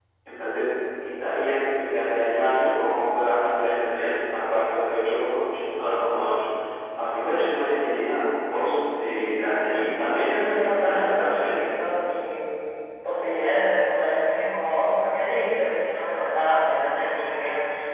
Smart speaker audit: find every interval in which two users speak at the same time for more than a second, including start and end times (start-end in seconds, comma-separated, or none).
10.3-11.6